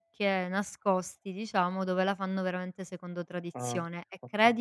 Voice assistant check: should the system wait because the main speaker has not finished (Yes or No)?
Yes